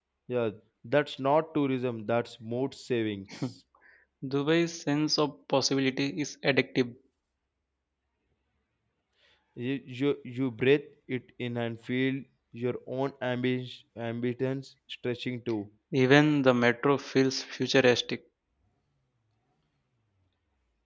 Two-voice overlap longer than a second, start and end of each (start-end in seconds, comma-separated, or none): none